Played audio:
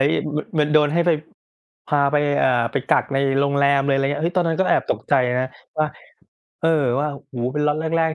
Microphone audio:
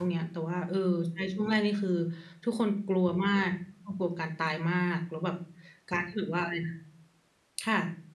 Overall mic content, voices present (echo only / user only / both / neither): user only